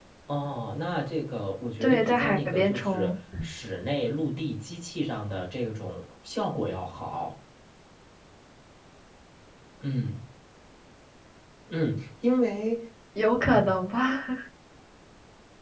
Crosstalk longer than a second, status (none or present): present